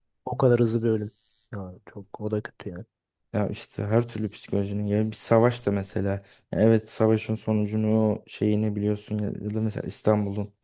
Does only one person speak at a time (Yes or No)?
Yes